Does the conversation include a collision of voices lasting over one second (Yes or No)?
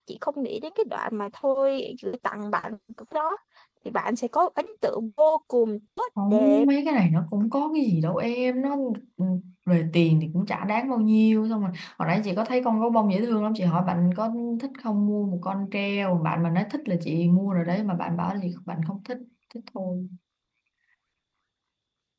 No